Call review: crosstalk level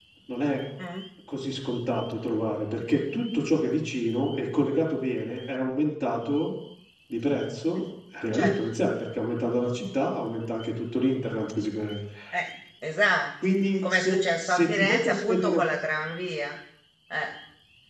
present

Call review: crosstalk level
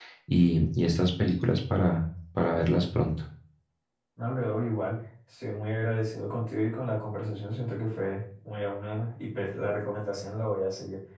none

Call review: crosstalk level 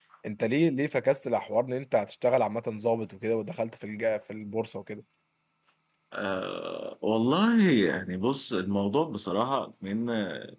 none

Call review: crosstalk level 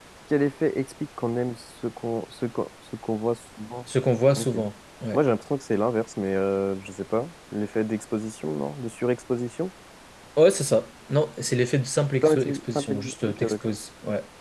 present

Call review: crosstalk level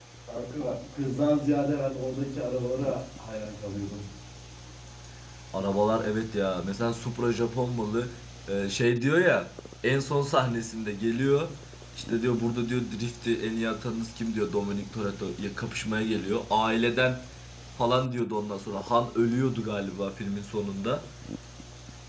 none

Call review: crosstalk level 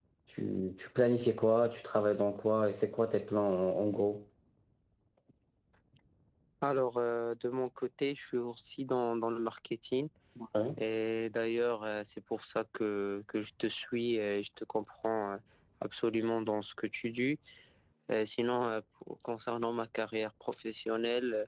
none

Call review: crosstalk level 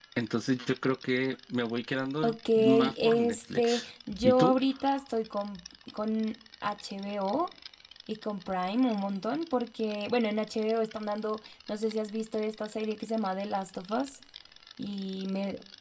present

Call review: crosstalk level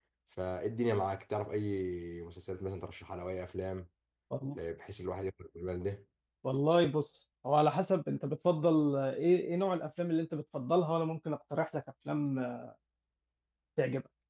none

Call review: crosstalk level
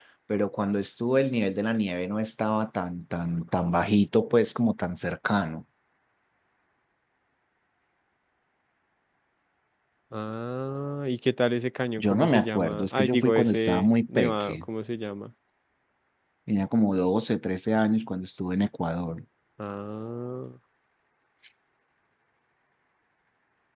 present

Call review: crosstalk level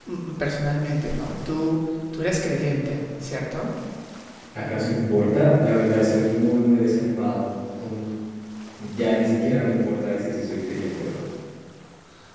none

